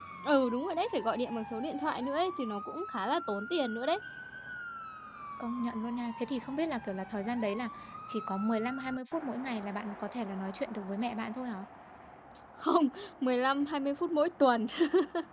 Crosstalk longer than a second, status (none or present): none